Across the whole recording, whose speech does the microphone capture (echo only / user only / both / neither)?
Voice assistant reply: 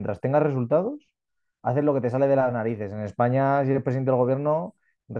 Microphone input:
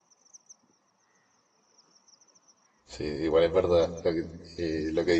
user only